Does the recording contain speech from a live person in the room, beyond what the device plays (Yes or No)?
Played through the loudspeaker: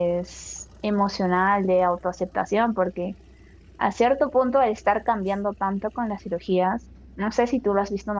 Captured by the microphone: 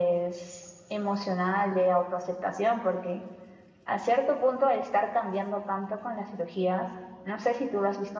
No